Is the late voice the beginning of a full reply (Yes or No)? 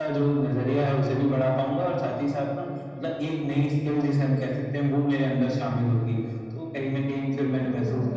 No